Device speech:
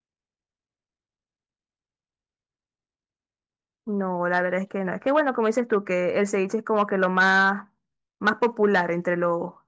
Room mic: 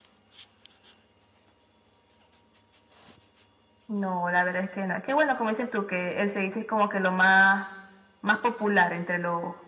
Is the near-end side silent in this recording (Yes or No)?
Yes